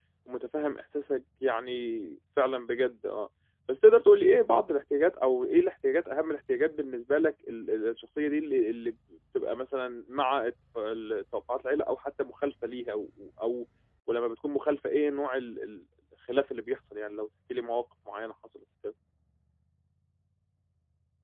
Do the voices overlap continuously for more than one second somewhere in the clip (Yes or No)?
No